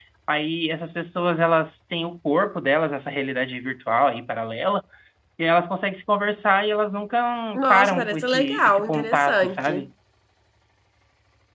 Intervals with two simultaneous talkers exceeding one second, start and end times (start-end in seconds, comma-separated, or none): 7.7-9.8